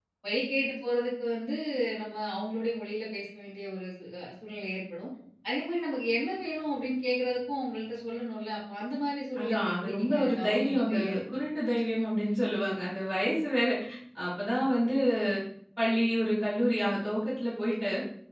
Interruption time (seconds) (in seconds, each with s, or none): 9.3 s